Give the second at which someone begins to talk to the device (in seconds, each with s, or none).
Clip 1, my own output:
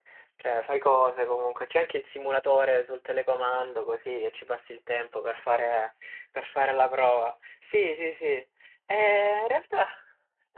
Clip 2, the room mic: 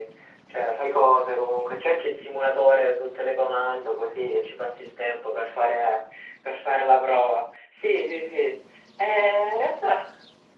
none